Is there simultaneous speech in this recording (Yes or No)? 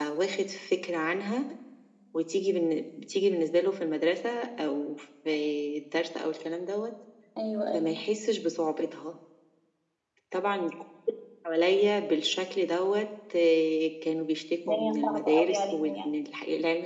Yes